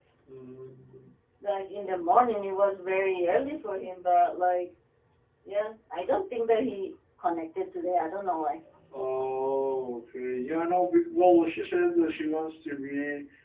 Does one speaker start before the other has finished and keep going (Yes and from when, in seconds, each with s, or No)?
No